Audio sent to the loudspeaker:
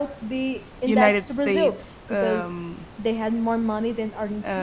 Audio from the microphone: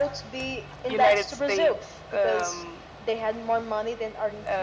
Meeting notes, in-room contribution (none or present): none